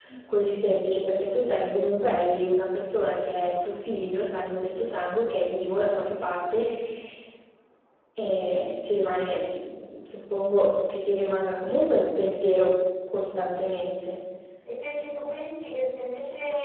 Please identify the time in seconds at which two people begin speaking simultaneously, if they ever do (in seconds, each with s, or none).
none